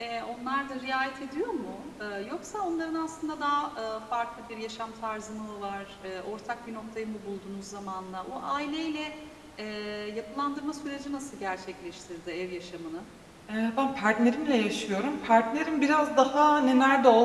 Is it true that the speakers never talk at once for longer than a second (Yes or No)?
Yes